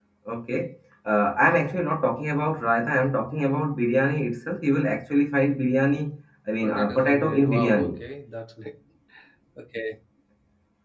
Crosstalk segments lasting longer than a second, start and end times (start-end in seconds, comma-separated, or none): 6.6-8.0